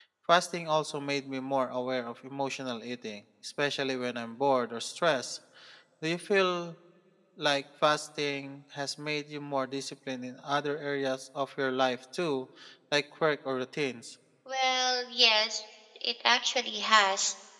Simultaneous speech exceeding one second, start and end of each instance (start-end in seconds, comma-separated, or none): none